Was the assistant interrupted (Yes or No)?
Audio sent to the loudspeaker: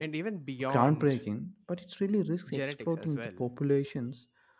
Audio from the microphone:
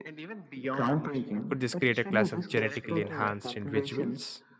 Yes